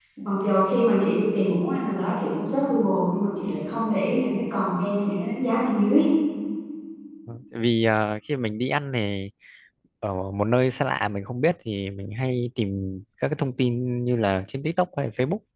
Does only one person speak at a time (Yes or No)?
Yes